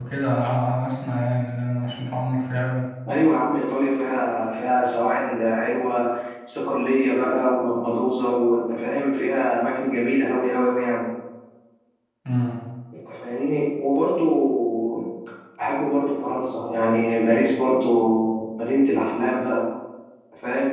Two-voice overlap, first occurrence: none

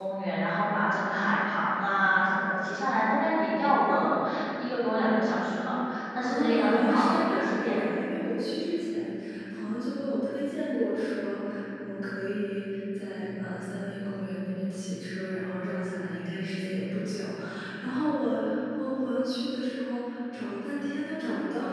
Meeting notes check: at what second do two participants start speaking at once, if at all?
6.1 s

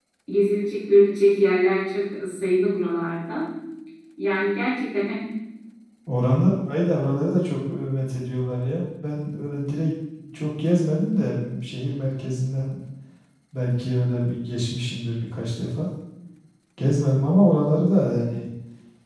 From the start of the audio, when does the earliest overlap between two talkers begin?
none

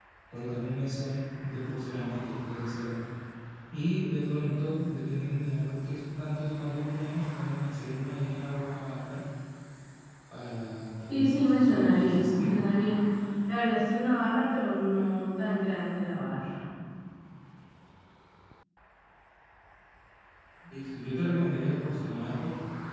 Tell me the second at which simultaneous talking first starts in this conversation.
11.1 s

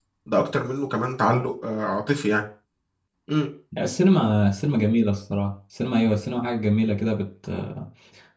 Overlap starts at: none

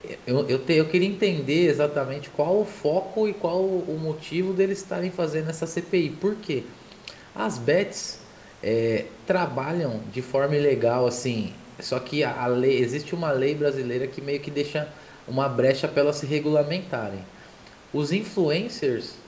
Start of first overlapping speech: none

